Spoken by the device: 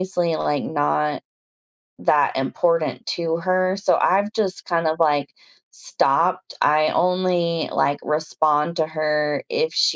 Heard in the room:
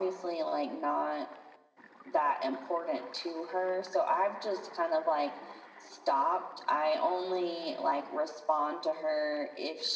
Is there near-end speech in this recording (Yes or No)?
No